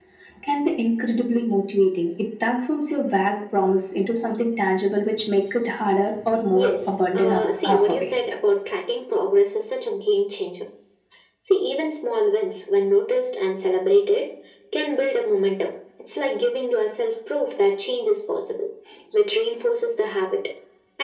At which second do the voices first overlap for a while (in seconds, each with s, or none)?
6.5 s